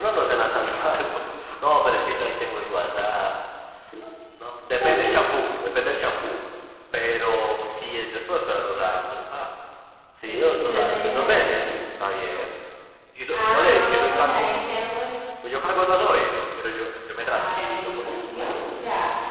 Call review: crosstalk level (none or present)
present